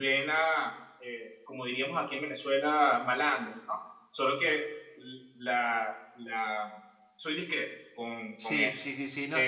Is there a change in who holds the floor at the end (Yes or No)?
Yes